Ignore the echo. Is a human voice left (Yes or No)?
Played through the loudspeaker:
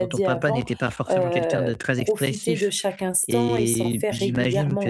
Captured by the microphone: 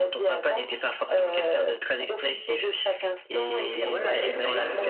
Yes